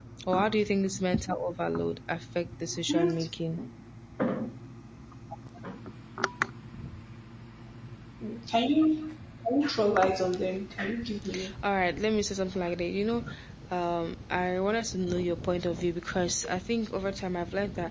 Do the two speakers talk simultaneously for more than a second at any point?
No

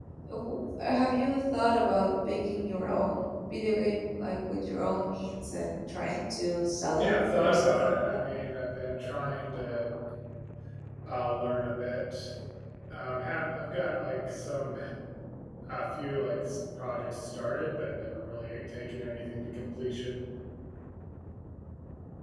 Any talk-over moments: Yes, from 7.0 s

